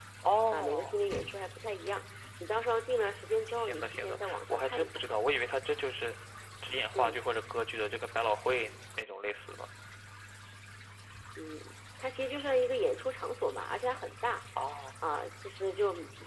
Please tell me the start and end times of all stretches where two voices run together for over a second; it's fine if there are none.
3.5-4.9

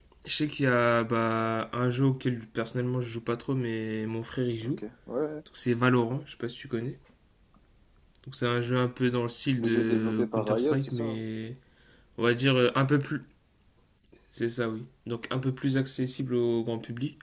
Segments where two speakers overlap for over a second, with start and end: 9.6-11.2

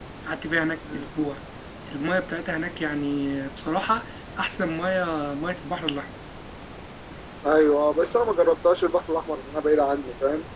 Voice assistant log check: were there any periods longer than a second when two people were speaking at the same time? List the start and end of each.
none

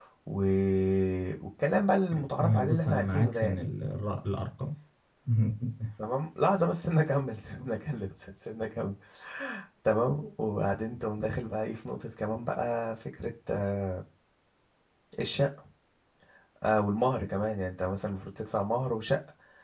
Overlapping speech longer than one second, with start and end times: 2.1-3.6

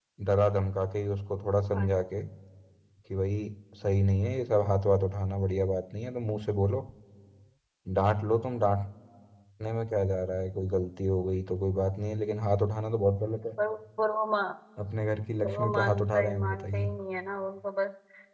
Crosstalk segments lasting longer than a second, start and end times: 15.4-16.9

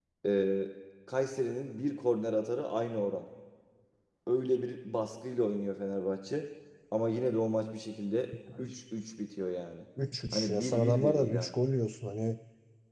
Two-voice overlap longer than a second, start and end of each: 10.3-11.5

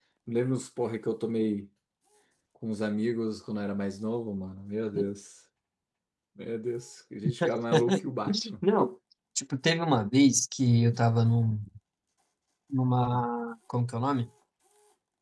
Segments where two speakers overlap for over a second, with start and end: none

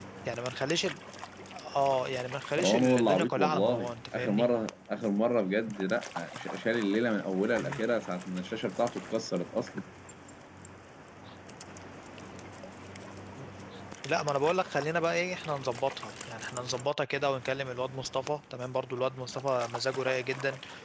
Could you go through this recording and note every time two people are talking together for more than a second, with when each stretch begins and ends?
2.6-4.5

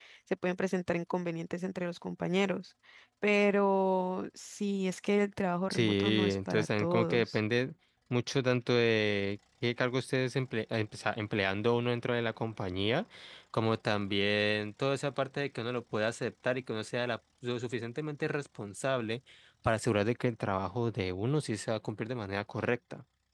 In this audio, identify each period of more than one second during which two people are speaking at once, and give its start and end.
5.7-7.4

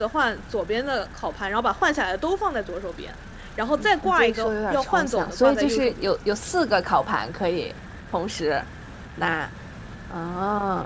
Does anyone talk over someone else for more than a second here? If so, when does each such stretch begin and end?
3.8-6.1

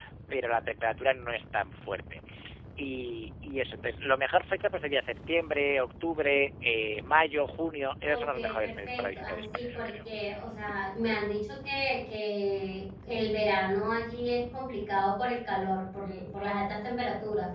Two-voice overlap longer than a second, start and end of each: 8.1-9.9

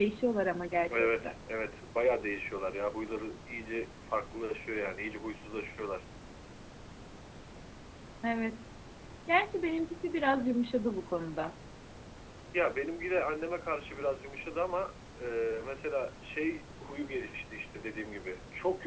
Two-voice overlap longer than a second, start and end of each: none

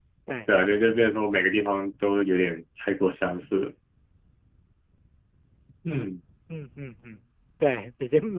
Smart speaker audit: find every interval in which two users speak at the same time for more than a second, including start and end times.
none

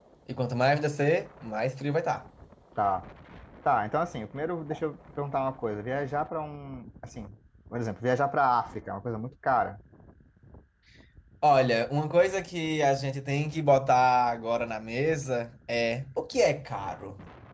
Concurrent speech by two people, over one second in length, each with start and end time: none

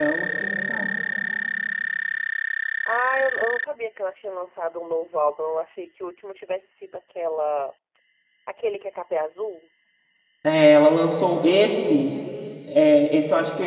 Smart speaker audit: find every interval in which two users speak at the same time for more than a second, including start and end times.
none

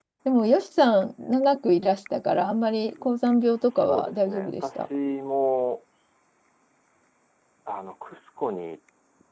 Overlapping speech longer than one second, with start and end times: 3.4-4.9

